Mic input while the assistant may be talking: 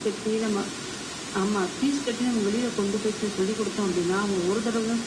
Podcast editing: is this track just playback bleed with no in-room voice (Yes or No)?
Yes